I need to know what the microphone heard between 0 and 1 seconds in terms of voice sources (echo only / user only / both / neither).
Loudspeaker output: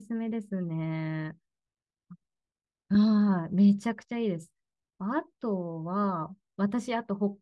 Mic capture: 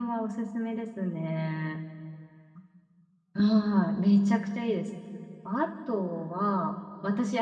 echo only